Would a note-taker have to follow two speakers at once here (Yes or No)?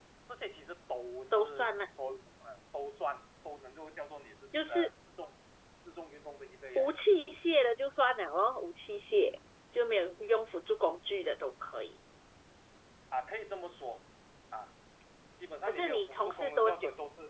Yes